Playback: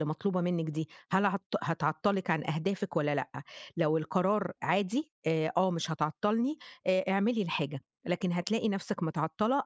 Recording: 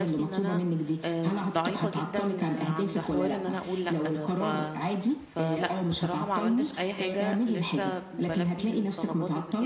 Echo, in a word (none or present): present